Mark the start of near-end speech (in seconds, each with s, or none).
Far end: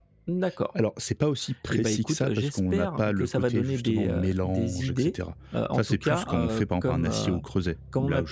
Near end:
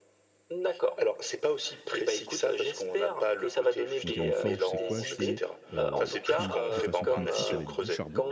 4.0 s